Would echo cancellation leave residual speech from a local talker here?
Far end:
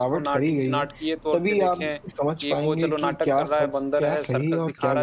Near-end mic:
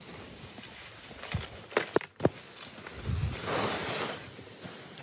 No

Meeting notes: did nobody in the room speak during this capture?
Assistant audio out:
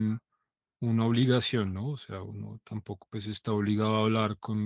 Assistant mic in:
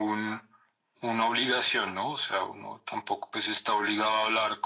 Yes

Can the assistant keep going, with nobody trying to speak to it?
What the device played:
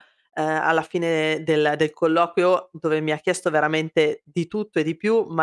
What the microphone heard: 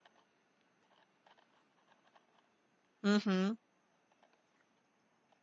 No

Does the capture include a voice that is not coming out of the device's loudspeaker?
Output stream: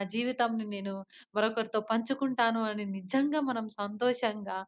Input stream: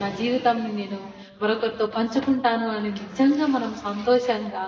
No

